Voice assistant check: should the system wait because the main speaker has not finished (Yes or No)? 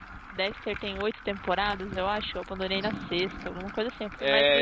No